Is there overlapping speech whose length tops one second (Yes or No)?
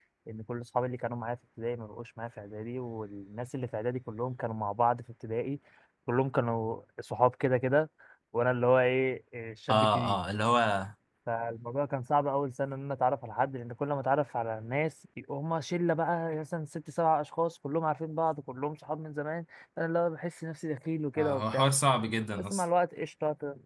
No